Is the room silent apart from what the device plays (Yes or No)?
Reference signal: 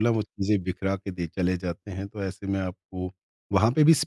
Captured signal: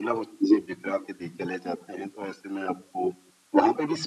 Yes